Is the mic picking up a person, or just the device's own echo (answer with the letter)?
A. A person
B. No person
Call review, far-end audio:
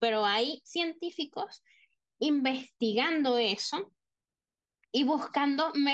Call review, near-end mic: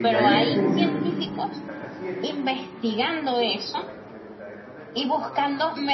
A